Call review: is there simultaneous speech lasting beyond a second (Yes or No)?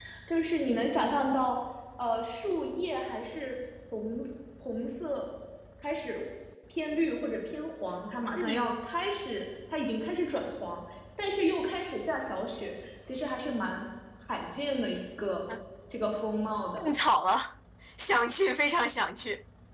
No